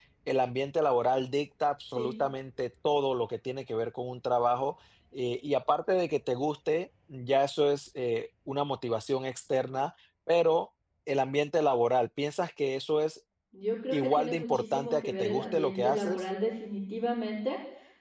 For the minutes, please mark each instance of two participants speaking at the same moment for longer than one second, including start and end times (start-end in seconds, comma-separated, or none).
13.9-16.2